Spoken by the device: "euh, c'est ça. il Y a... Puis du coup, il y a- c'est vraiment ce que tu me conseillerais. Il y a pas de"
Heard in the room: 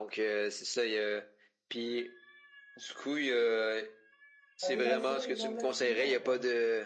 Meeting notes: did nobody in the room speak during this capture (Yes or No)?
No